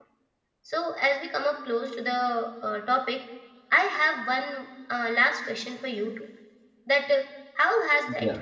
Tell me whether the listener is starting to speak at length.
No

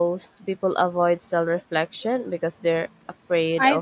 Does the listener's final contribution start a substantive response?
Yes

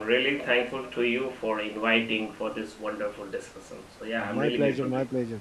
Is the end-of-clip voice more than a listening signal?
Yes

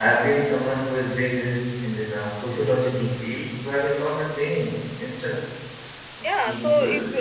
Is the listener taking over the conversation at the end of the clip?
Yes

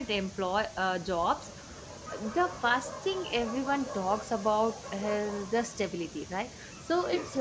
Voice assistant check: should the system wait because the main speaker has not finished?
Yes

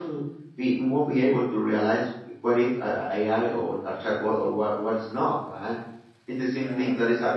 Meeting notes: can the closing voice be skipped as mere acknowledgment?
Yes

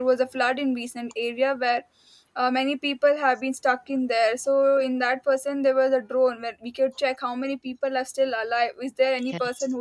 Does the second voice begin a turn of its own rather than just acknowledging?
No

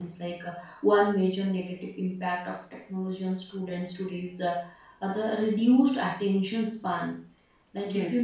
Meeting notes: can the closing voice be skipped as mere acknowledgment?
Yes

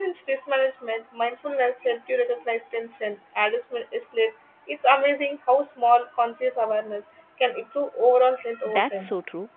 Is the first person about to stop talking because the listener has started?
Yes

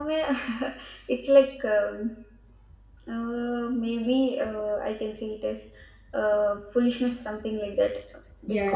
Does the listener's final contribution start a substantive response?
Yes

